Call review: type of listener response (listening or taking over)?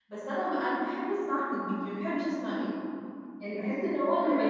taking over